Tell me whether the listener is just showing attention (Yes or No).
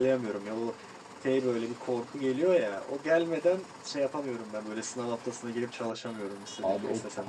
No